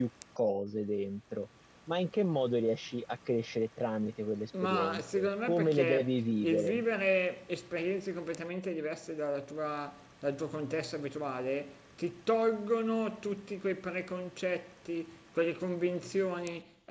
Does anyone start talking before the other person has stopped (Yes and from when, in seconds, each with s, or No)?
Yes, from 4.5 s